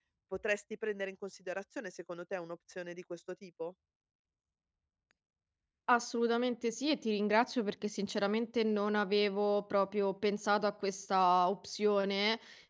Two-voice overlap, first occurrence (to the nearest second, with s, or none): none